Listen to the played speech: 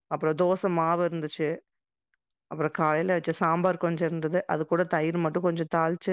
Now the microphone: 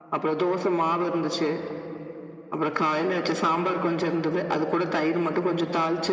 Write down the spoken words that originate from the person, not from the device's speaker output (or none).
none